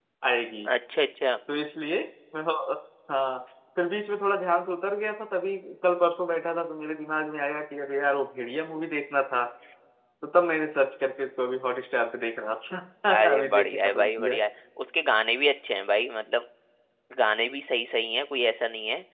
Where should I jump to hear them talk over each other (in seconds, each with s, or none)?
13.1 s